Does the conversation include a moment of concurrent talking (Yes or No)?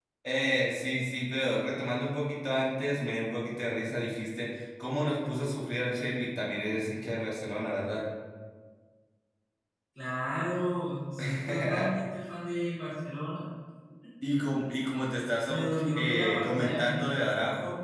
Yes